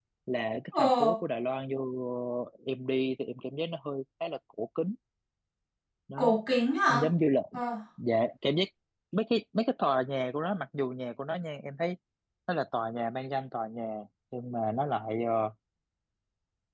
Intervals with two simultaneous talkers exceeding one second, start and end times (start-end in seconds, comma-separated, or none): none